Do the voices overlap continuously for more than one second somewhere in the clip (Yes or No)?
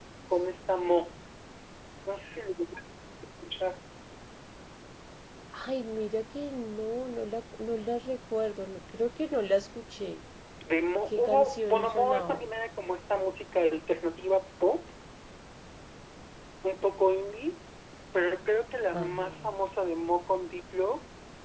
Yes